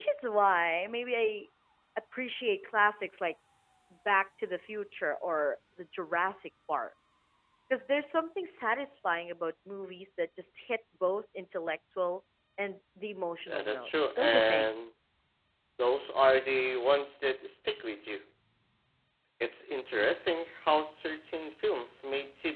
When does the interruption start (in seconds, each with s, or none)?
13.5 s